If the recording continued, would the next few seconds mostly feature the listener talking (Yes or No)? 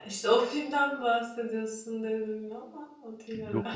Yes